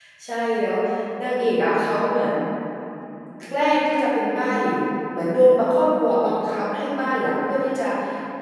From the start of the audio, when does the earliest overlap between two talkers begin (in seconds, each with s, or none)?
none